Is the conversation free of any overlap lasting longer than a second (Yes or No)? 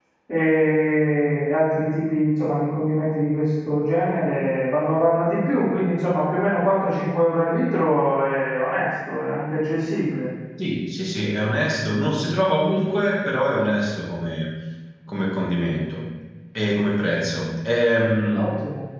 Yes